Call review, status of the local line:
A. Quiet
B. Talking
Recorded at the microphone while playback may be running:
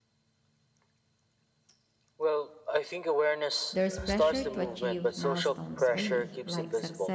B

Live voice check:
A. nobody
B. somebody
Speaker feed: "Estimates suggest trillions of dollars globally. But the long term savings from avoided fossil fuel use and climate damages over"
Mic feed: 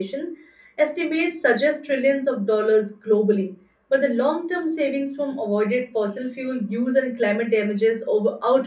A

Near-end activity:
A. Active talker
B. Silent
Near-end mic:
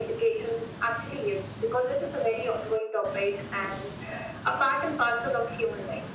B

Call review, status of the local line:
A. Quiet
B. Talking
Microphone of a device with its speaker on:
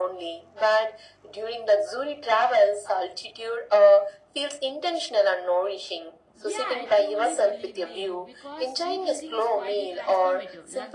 B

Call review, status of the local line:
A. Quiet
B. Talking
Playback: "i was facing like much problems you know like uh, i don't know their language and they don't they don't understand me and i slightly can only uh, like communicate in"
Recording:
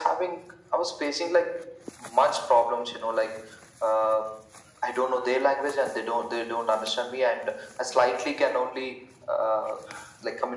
A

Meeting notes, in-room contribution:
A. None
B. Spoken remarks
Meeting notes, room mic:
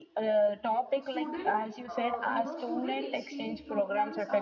B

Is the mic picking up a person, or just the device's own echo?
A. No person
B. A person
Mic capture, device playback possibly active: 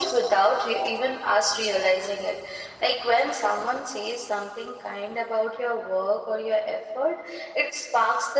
A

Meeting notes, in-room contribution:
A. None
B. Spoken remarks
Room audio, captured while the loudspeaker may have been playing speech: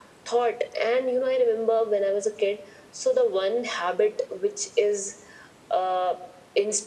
A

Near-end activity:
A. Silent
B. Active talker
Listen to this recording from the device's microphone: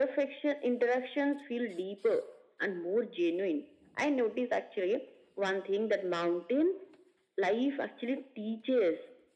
A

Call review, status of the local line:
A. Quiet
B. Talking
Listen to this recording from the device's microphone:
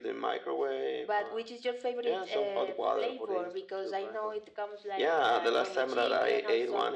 A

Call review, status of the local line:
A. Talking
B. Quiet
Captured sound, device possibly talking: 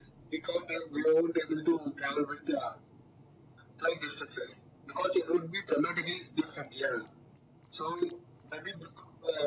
B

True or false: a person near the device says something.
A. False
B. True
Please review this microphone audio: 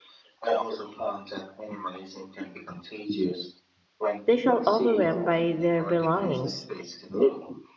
B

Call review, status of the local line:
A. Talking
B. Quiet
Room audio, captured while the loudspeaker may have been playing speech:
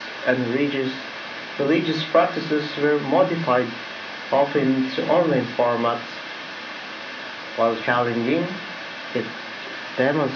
B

